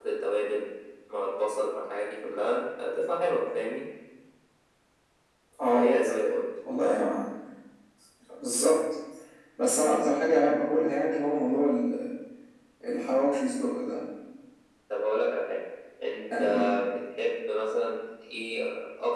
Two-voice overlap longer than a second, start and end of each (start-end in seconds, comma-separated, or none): none